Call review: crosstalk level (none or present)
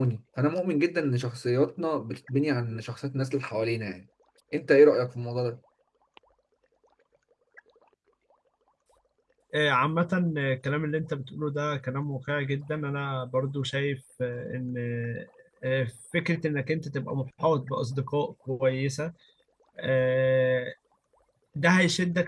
none